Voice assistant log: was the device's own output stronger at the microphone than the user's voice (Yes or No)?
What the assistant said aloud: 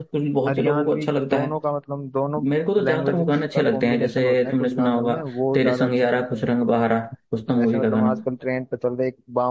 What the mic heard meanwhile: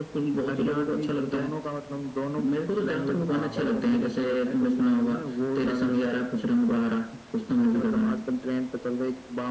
Yes